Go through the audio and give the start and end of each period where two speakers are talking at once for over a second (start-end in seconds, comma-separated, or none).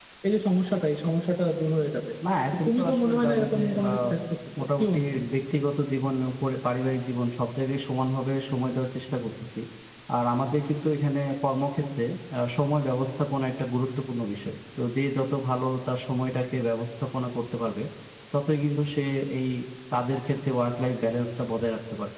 2.7-4.0